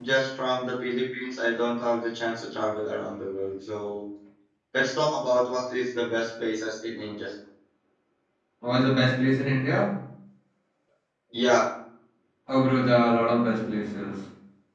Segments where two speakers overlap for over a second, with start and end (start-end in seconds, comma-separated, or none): none